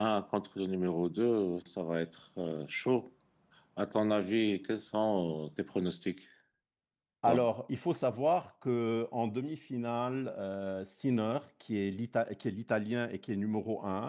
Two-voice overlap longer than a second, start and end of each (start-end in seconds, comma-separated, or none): none